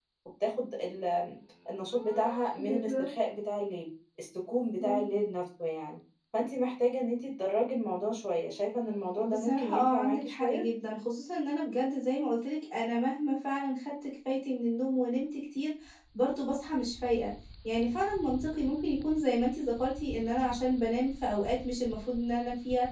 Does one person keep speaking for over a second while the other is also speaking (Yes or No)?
Yes